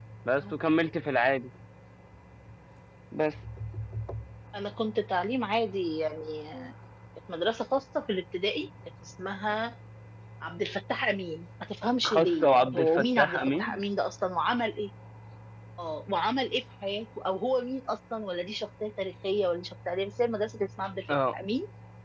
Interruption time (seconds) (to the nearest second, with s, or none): 12 s